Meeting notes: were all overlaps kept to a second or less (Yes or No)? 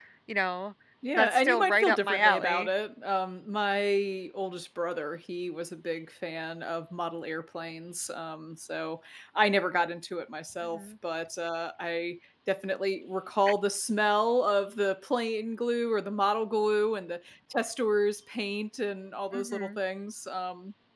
No